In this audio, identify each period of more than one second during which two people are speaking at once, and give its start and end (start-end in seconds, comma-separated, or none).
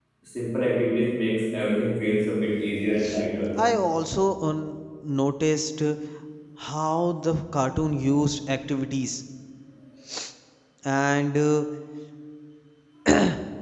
none